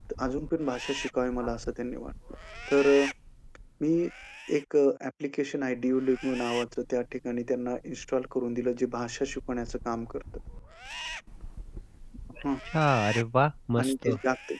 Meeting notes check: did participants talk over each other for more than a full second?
No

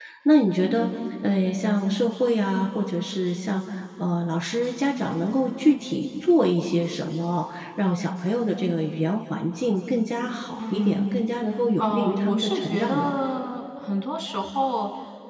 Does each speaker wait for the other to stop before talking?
No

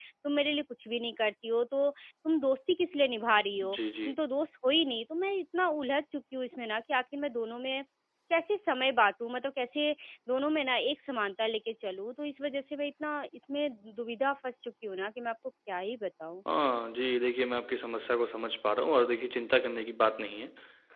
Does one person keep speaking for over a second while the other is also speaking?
No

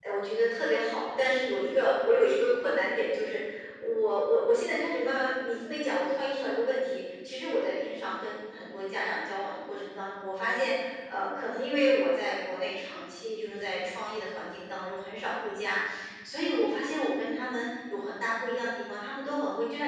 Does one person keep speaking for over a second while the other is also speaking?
No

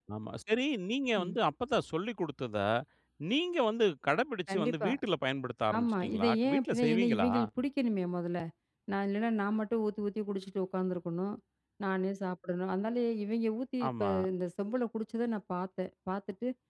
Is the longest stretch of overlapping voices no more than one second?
No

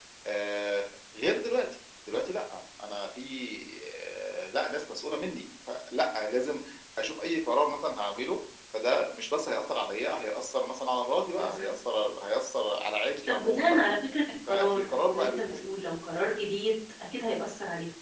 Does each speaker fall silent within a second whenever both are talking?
No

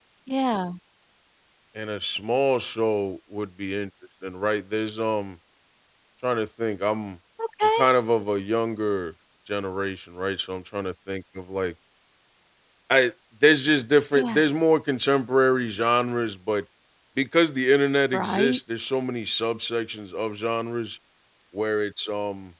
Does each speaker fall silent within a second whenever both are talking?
Yes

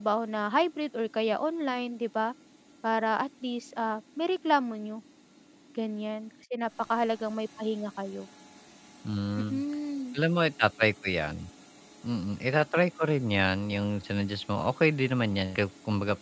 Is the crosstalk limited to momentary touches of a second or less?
Yes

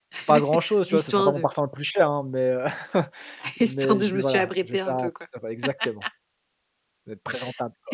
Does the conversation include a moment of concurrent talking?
Yes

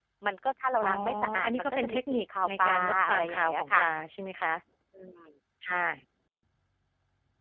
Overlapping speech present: Yes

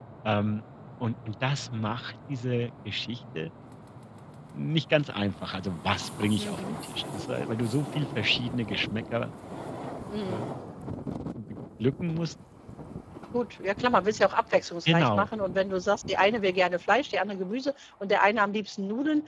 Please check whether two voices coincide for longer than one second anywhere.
No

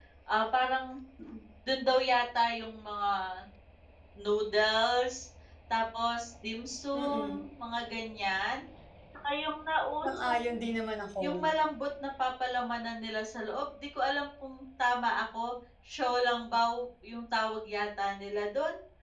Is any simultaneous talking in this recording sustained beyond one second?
No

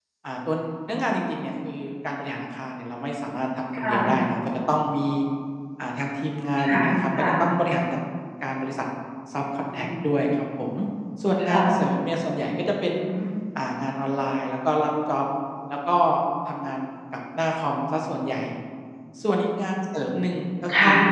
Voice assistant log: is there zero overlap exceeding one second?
Yes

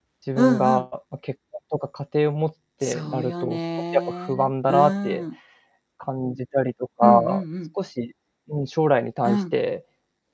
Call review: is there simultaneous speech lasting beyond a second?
Yes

